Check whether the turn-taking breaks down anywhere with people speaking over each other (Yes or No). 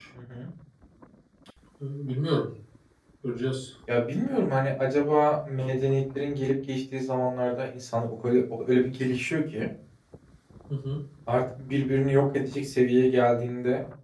No